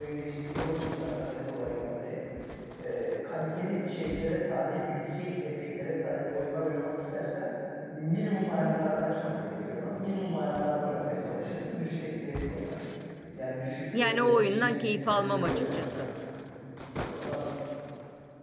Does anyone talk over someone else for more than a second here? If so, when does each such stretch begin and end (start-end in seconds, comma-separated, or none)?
13.9-16.1